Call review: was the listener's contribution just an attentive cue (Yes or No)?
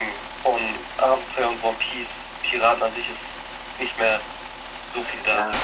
No